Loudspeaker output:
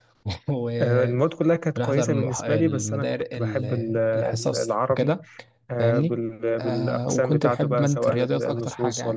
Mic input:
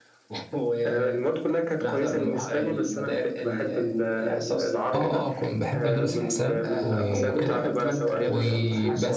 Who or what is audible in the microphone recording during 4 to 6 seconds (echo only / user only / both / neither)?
both